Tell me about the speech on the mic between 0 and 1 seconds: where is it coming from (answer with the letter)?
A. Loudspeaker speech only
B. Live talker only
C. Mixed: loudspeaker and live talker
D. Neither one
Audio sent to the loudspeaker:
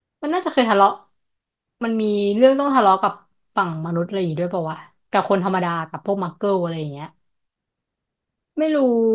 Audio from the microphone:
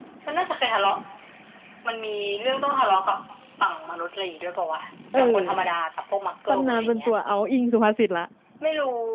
A